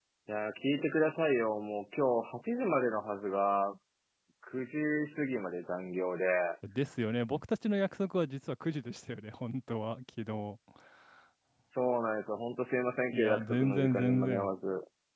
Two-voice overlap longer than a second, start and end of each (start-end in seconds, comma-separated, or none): 13.1-14.5